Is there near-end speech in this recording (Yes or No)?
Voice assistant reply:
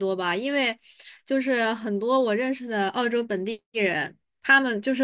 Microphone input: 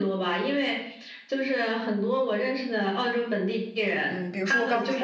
Yes